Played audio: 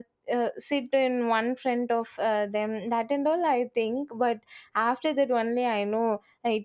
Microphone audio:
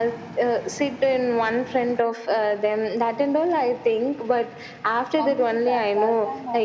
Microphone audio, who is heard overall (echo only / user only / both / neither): both